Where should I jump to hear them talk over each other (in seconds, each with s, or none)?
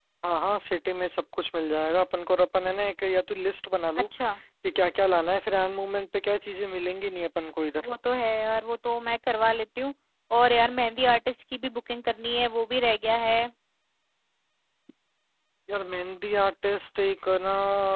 none